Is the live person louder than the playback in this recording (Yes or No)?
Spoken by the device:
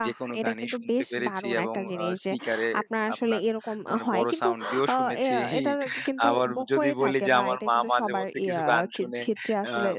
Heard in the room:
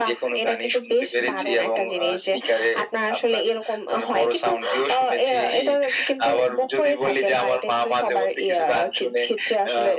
No